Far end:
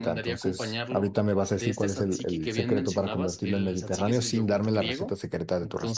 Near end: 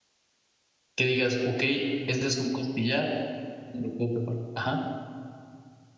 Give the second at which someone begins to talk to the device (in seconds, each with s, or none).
0.9 s